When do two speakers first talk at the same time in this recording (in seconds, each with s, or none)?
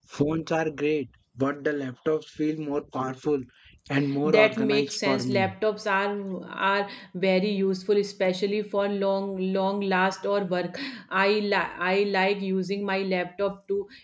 4.2 s